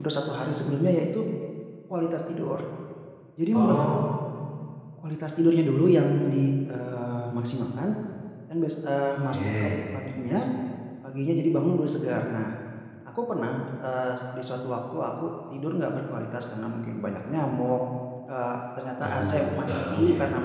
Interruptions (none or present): present